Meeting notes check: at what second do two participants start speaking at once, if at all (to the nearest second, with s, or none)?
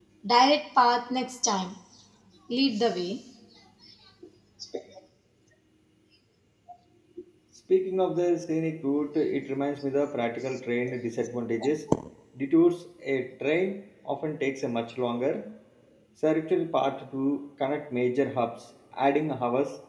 none